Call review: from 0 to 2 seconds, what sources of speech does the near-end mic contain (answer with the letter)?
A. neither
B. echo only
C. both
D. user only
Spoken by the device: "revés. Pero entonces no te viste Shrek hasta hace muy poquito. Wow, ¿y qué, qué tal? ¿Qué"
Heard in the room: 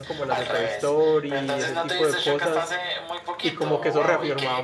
C